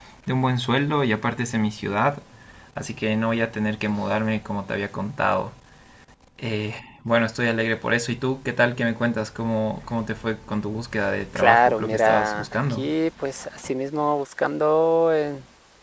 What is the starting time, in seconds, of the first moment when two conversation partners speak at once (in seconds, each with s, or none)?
11.4 s